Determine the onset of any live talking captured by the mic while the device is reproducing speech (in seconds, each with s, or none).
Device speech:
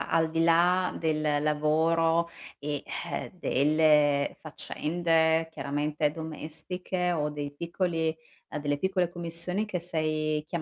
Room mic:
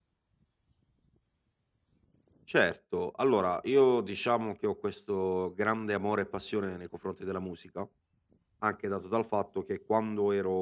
2.5 s